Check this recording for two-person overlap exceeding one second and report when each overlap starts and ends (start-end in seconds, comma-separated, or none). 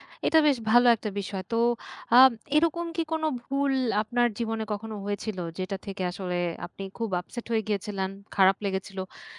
none